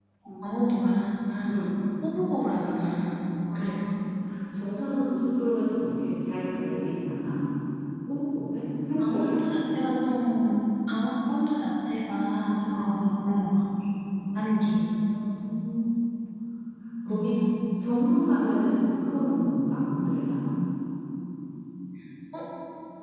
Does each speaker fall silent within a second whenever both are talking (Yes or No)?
Yes